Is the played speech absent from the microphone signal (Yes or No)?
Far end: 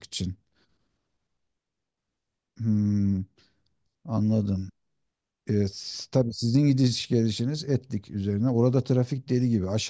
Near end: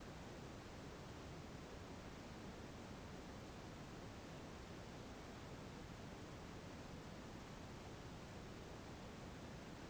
Yes